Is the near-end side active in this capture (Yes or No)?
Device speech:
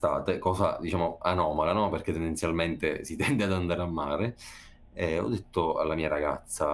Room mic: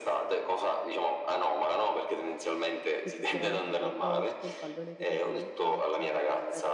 Yes